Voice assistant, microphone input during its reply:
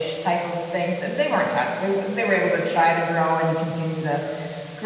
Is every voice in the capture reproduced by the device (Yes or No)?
Yes